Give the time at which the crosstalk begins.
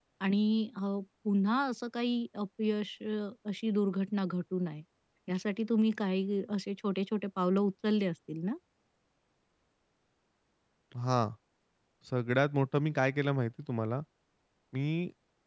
none

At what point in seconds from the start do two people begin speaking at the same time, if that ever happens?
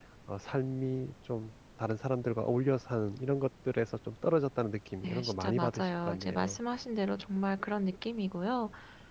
5 s

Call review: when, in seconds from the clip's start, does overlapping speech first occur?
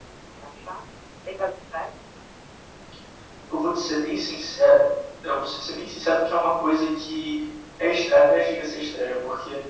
none

